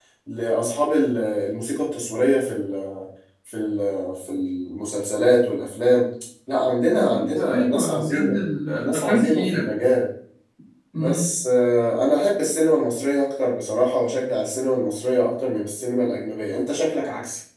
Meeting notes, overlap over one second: present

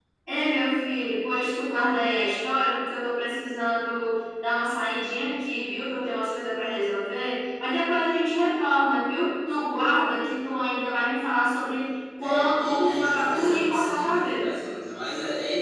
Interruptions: present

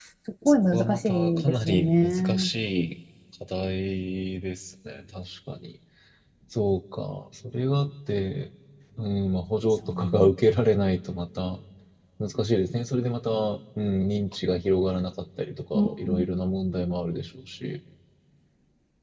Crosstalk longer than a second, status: present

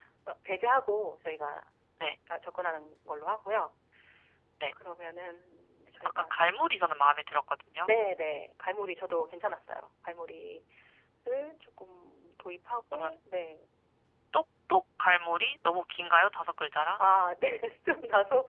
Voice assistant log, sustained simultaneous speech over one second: none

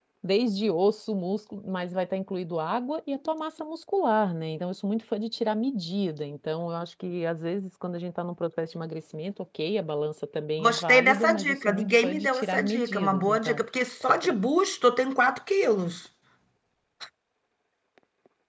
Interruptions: present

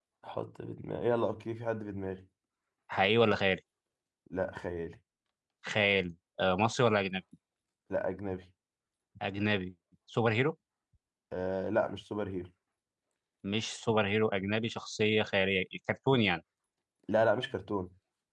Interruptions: none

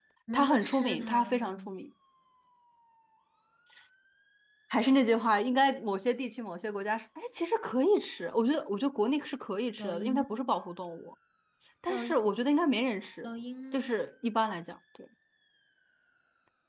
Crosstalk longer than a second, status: present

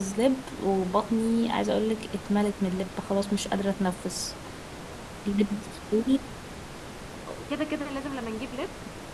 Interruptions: none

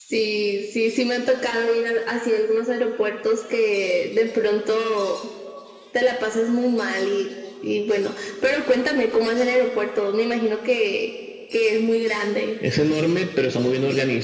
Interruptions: none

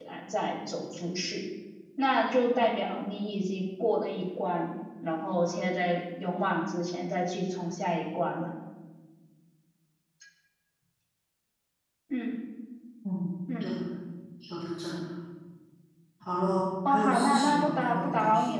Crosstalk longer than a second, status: present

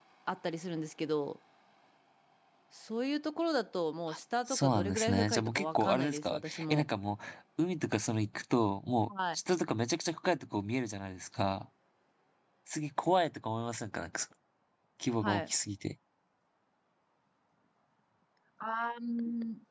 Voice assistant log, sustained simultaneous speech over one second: present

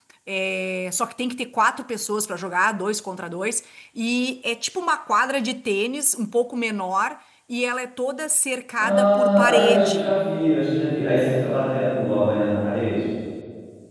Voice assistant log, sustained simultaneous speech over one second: present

